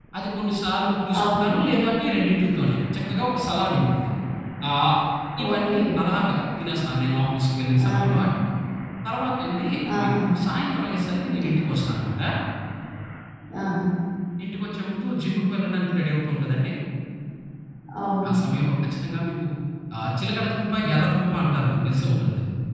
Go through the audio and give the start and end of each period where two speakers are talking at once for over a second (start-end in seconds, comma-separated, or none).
none